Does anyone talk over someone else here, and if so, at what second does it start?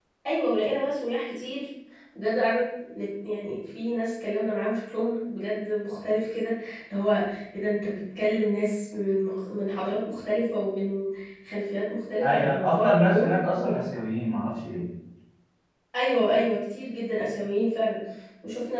12.2 s

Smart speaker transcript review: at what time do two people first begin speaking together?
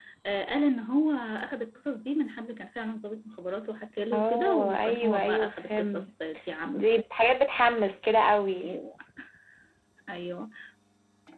4.1 s

